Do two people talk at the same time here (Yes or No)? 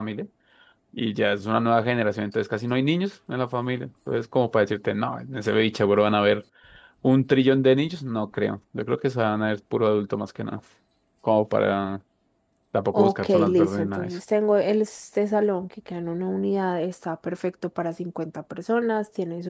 Yes